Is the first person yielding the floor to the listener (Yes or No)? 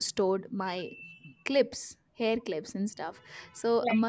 No